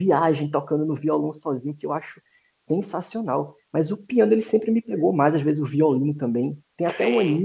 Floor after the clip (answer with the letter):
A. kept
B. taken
A